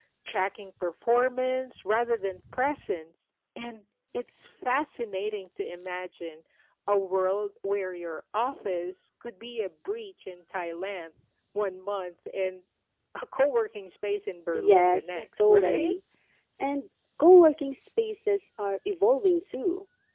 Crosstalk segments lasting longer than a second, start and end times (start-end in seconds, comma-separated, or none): 14.5-15.9